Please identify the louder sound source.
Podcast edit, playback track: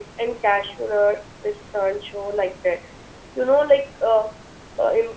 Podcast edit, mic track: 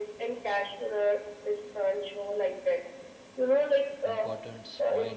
echo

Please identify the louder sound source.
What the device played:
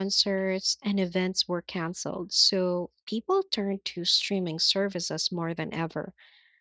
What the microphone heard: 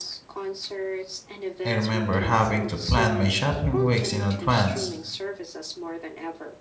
user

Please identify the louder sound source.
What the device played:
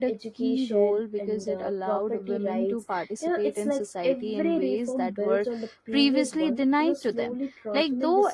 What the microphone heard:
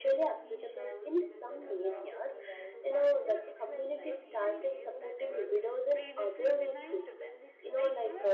user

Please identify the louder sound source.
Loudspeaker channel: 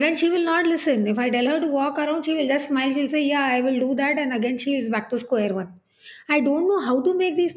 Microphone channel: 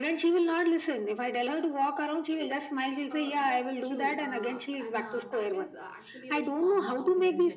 echo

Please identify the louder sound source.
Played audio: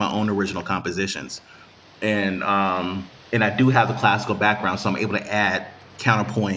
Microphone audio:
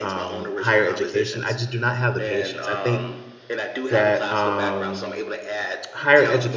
user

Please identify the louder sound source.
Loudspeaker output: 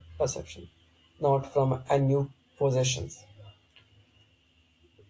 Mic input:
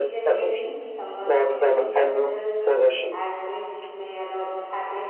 echo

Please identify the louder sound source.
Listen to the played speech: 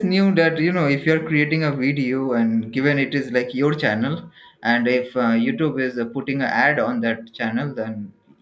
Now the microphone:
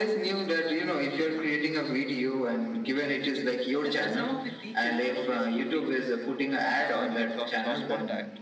echo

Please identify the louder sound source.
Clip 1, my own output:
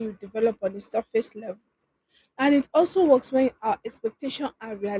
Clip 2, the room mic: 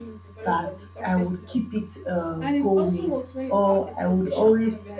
user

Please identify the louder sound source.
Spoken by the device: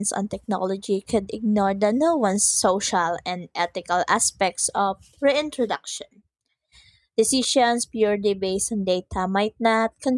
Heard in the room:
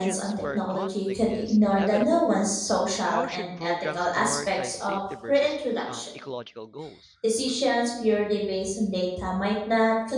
echo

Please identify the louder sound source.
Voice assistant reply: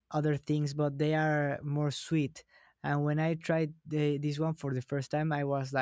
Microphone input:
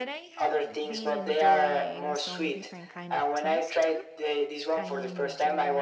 echo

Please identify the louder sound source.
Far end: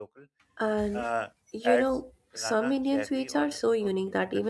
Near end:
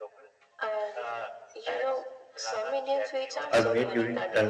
user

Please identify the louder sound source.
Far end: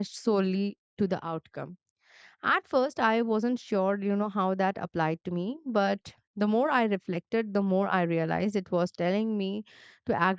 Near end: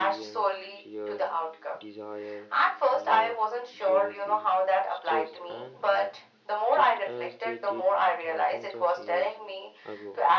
echo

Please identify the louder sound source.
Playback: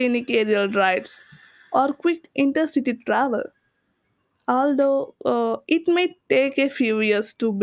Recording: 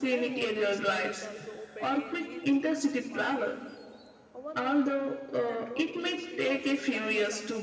echo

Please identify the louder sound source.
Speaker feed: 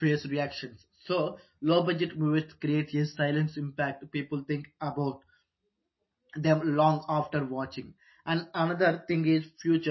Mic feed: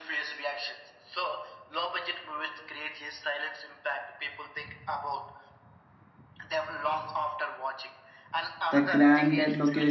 user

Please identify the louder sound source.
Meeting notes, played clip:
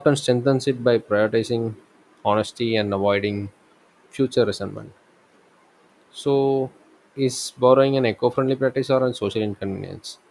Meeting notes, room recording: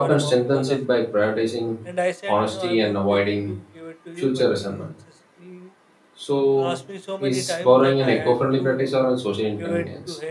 echo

